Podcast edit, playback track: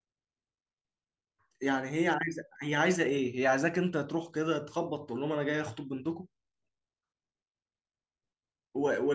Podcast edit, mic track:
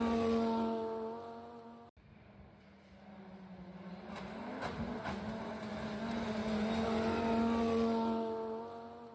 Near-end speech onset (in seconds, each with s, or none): none